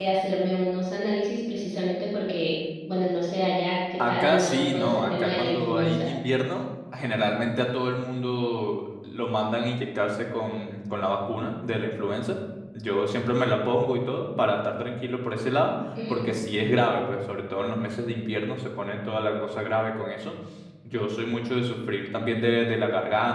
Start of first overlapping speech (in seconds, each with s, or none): 4.0 s